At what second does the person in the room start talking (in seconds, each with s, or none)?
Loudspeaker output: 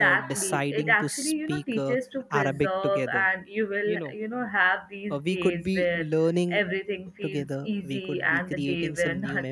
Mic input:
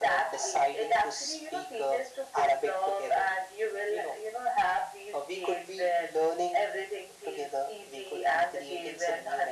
none